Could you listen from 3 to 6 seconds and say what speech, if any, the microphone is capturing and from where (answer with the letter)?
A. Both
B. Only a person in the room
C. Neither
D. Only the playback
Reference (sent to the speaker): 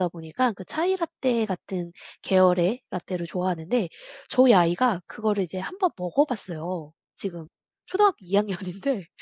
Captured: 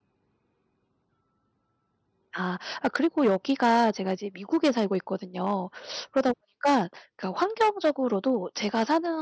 B